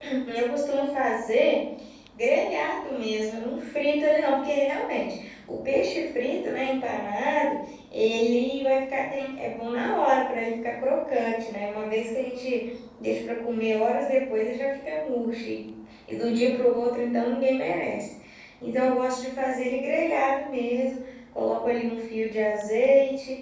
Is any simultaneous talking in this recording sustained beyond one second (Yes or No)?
No